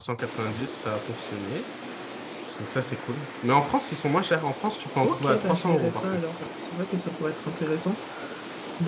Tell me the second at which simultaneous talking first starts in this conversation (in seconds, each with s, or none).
5.0 s